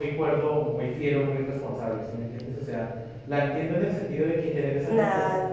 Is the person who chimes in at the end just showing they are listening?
Yes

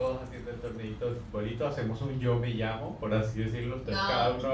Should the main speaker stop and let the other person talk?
Yes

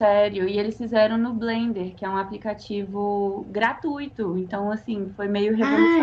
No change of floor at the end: No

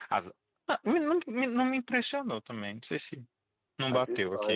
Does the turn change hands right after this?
Yes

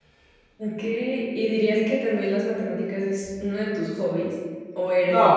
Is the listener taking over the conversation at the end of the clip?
Yes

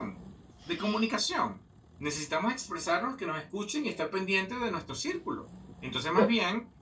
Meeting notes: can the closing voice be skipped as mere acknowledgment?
Yes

